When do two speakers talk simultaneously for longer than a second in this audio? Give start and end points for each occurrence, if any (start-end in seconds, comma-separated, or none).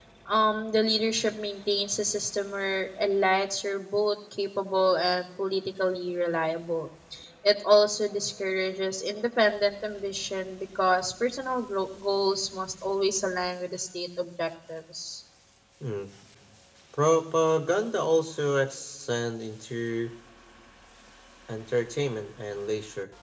none